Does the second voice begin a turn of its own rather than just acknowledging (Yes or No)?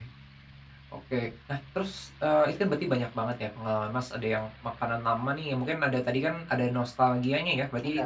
No